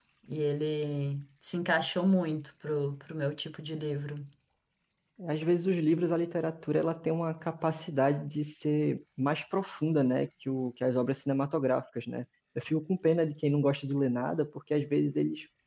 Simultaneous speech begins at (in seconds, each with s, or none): none